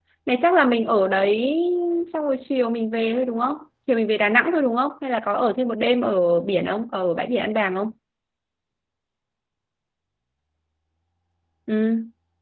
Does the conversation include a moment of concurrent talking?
No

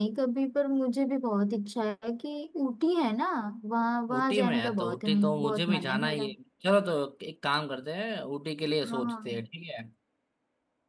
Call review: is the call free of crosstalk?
No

